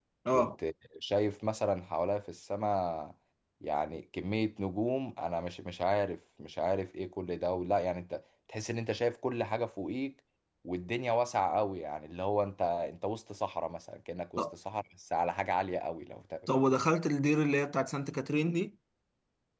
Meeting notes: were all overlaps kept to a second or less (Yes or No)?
Yes